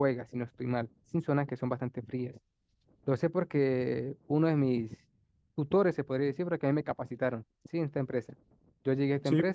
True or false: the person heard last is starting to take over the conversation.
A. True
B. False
B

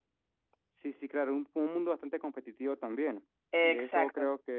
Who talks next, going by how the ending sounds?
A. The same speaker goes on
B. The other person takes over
A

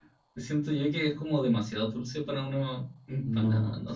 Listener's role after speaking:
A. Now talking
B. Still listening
A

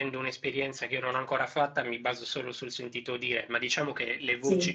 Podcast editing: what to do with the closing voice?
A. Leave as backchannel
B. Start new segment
A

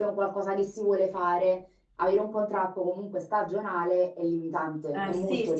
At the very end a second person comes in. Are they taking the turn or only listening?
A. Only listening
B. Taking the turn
B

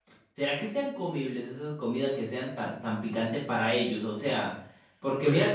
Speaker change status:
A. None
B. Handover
A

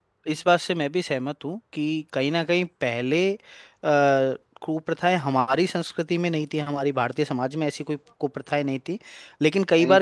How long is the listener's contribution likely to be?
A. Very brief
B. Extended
A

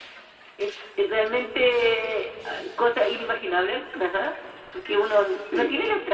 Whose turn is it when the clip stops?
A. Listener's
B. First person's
B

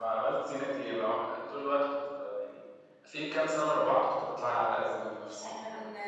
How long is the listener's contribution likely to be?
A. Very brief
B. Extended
B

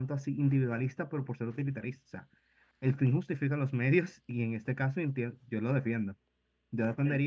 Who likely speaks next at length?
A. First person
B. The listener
A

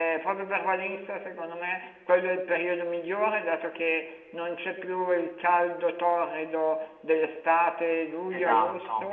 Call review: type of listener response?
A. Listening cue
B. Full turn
B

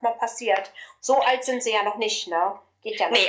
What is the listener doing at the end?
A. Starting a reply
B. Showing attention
A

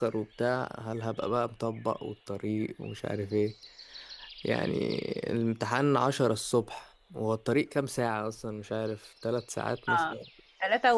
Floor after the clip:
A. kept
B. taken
B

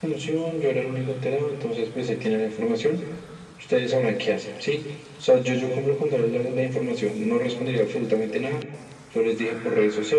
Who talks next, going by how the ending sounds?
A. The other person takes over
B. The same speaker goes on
B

